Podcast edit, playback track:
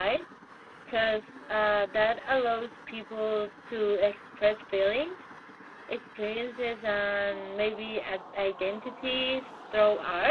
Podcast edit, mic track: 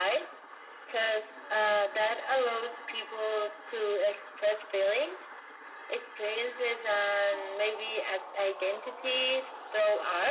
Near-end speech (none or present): none